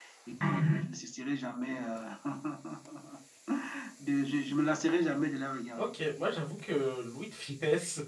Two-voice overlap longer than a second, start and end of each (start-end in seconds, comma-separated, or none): none